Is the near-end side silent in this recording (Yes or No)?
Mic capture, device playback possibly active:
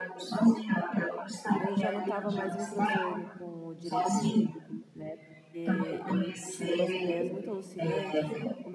No